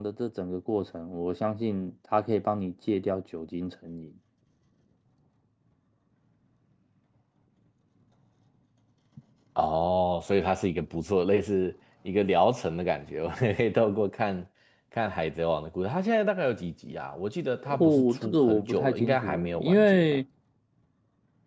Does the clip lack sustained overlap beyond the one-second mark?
No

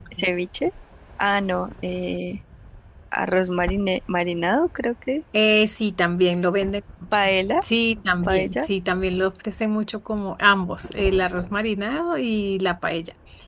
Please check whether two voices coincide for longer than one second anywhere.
No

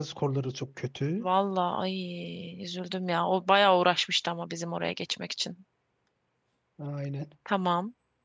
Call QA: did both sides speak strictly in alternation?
Yes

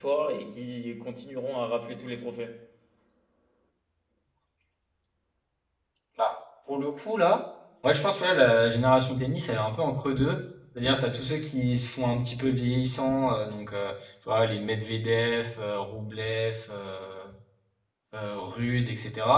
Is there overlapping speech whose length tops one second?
No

